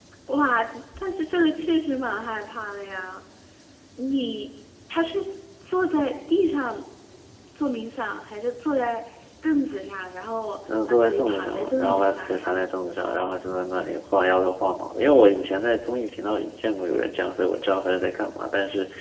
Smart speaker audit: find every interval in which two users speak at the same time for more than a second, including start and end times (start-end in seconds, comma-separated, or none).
10.9-12.5